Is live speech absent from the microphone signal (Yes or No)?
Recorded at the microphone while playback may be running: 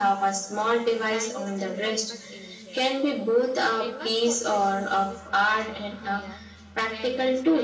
No